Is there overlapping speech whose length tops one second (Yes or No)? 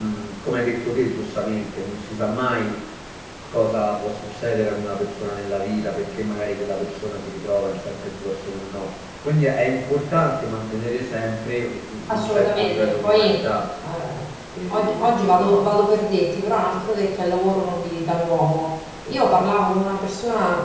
Yes